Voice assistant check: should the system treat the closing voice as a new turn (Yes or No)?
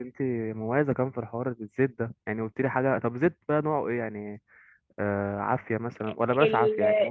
Yes